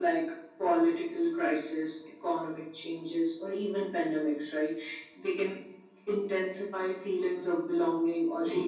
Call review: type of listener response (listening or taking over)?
taking over